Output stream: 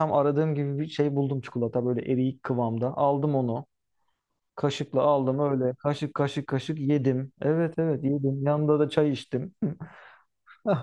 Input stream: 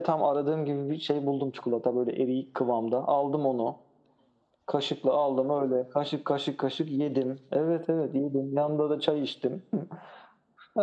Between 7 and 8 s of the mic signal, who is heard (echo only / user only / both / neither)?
echo only